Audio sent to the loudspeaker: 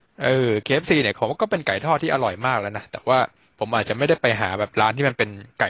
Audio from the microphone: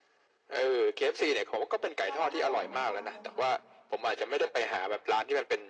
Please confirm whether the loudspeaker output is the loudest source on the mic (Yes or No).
Yes